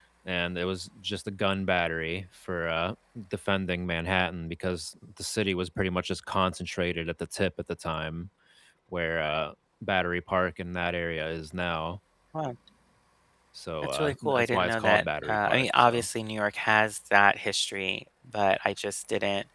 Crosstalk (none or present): present